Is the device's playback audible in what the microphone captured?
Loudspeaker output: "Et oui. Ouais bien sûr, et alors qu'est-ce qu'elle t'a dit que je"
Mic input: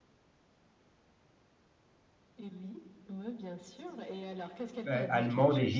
Yes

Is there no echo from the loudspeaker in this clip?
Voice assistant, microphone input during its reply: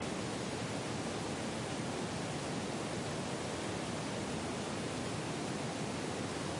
Yes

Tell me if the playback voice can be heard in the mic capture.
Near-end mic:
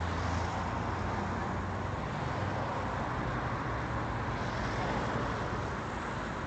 No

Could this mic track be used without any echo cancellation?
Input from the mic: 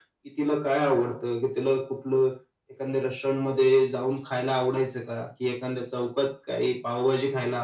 No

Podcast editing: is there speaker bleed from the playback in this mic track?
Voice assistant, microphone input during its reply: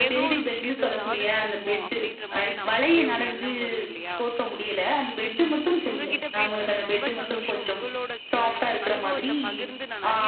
Yes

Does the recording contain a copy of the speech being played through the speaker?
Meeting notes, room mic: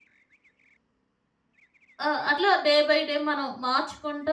No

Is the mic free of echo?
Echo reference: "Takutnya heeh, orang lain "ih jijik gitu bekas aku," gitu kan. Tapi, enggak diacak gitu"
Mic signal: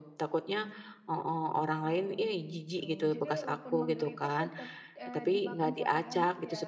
No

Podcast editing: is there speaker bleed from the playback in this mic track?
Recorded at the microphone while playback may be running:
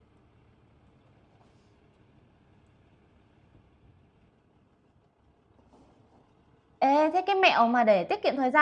No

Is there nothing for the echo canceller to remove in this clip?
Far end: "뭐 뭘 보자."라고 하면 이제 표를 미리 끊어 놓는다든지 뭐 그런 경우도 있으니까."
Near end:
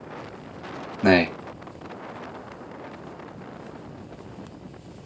Yes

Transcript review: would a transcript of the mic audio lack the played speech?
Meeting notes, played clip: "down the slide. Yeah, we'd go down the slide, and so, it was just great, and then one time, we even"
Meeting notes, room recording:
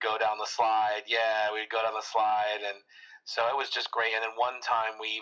No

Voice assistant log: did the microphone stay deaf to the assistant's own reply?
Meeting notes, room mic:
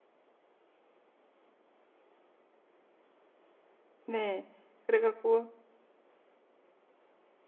Yes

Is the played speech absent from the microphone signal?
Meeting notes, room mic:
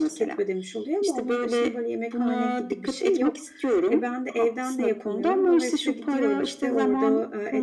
No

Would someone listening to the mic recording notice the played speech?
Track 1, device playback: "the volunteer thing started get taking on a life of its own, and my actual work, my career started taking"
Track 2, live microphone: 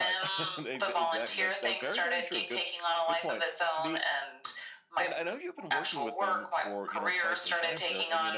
Yes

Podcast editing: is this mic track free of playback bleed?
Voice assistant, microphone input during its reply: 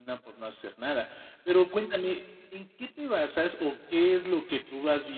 Yes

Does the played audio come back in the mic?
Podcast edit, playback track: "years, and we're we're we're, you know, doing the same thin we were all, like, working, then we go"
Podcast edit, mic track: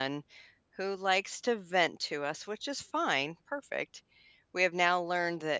No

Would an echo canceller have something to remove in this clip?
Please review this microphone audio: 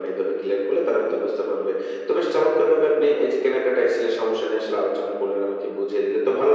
Yes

